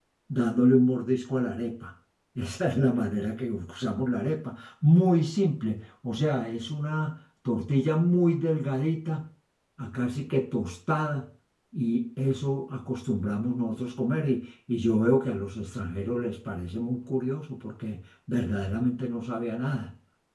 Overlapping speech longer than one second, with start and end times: none

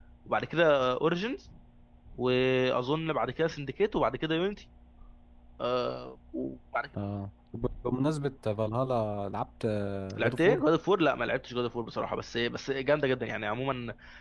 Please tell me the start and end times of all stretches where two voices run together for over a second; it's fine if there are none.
none

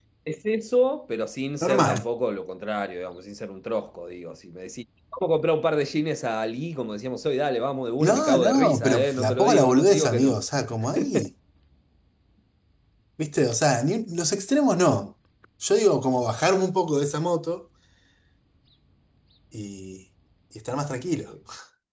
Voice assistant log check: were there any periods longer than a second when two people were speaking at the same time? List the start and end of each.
8.0-10.4

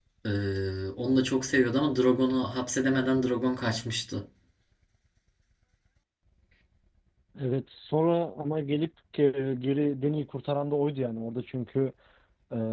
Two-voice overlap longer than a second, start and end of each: none

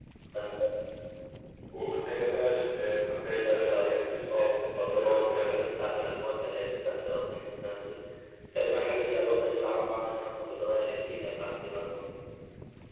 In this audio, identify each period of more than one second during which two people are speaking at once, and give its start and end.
3.1-5.7

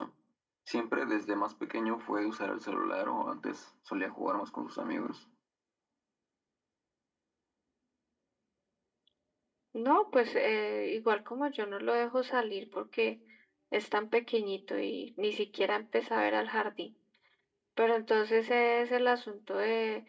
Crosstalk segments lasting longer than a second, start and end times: none

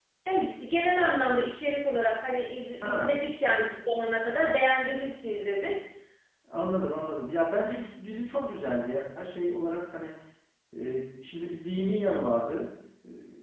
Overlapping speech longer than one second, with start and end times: none

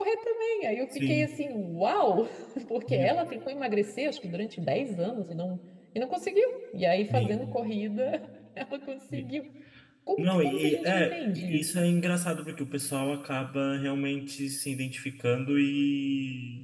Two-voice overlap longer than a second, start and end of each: 10.2-11.7

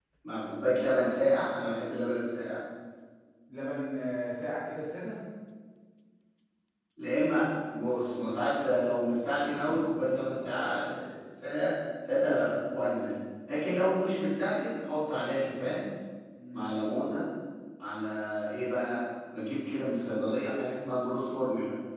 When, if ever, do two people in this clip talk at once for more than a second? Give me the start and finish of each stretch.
none

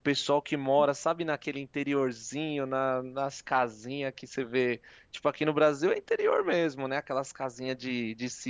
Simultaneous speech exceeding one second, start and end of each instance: none

